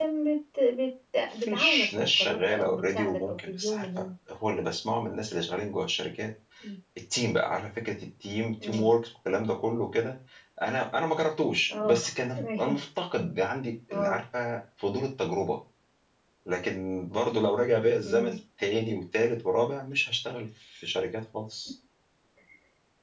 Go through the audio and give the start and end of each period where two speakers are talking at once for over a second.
1.4-3.8

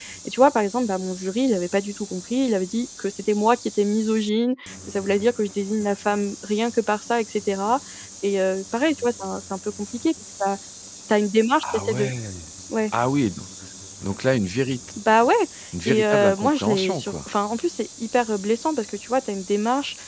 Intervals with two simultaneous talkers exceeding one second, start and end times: 15.8-17.3

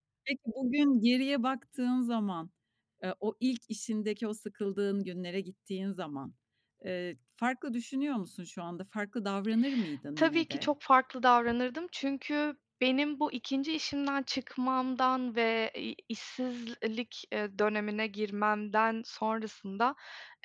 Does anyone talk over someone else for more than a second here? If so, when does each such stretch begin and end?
none

